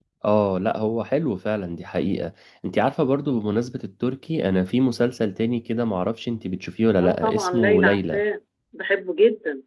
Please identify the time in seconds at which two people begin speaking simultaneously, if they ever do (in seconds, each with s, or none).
7.0 s